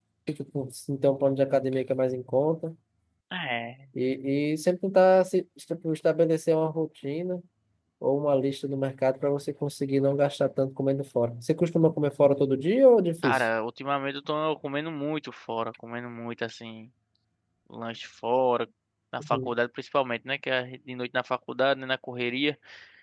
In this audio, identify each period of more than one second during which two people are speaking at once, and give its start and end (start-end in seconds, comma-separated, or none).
none